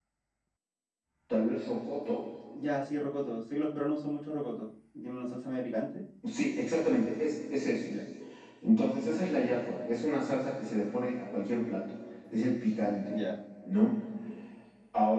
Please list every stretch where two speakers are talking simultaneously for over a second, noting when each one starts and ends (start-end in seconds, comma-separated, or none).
none